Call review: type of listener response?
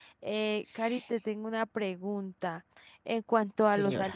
listening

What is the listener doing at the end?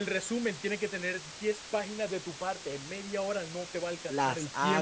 taking over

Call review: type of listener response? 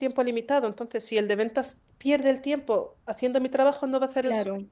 taking over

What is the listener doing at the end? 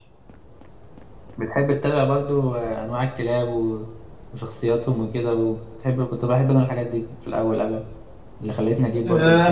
taking over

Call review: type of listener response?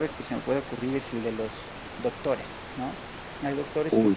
listening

